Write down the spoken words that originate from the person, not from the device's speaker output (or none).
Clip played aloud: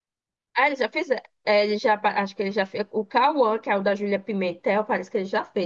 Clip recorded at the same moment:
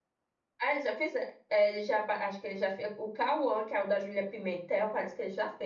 none